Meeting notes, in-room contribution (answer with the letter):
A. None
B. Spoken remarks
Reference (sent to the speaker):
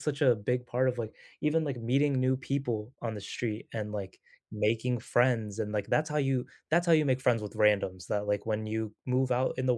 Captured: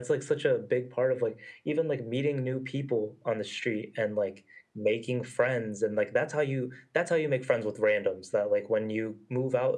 A